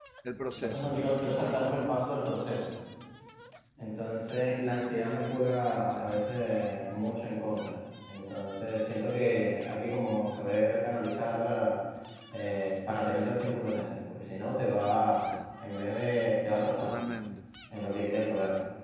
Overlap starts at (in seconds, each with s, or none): 0.5 s